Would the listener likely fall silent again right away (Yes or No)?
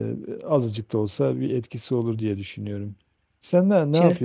Yes